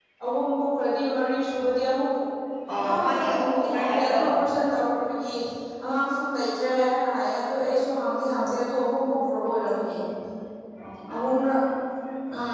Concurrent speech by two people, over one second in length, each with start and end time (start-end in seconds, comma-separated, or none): 2.9-4.4